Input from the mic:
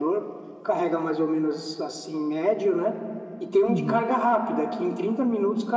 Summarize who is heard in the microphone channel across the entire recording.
both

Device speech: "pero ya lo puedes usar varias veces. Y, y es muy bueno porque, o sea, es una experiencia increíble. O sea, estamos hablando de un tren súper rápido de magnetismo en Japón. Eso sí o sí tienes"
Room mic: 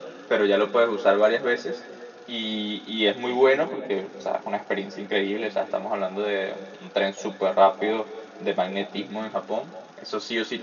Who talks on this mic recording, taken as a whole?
echo only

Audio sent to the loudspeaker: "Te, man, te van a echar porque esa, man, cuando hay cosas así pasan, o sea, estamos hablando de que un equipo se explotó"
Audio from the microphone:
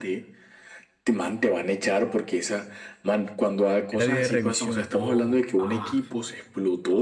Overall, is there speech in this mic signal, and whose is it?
both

